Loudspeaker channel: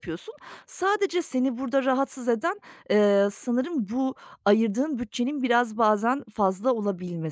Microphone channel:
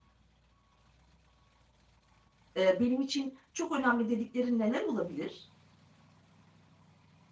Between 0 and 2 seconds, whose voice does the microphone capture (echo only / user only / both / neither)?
neither